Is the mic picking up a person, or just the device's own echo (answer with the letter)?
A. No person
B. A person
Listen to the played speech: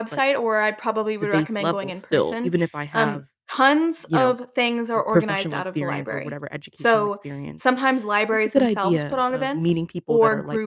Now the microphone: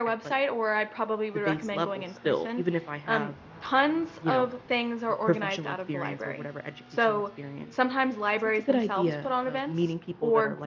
A